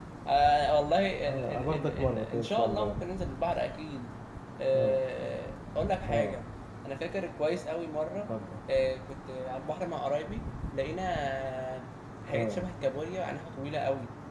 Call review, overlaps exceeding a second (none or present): present